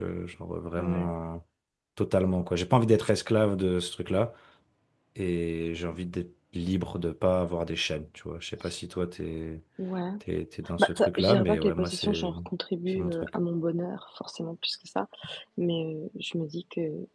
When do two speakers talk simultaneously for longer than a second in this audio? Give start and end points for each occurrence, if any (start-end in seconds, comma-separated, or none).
10.8-12.3